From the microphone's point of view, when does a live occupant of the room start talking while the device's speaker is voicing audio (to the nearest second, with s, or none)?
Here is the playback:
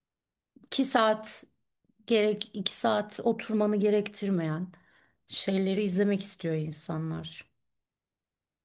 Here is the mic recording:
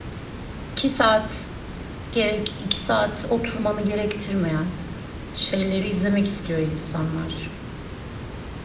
none